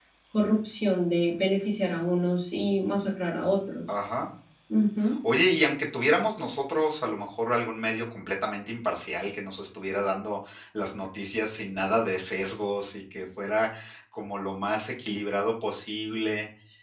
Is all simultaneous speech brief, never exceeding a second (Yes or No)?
Yes